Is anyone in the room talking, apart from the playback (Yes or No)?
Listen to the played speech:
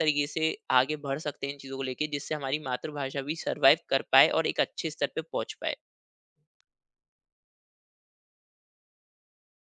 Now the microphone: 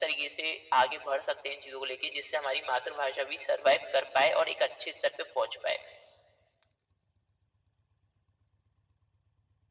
No